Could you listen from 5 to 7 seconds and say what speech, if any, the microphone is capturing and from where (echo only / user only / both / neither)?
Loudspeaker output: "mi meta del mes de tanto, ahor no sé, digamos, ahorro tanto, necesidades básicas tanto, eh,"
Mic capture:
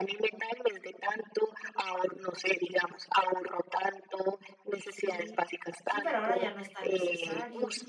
both